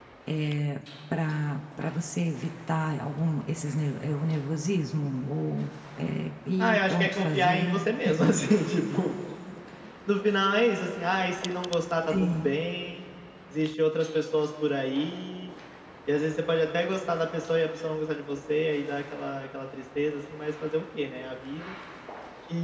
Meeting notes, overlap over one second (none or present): present